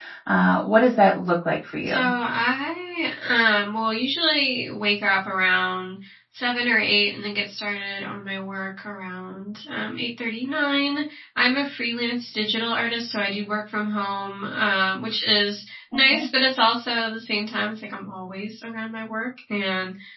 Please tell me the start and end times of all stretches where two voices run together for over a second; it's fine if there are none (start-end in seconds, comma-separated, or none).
none